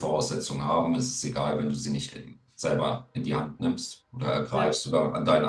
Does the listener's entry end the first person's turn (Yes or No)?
No